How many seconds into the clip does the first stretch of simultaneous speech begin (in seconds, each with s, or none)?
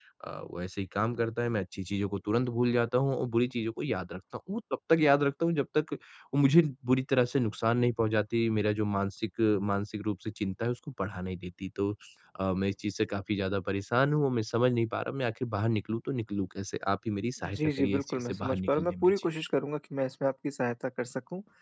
17.4 s